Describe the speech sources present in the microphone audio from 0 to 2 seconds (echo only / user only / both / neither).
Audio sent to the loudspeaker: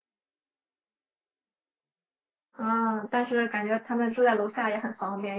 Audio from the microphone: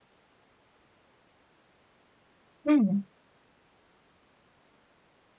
neither